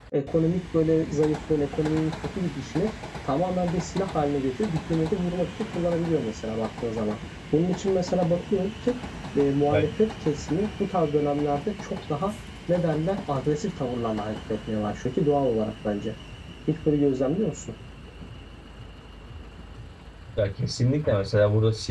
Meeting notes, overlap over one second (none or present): none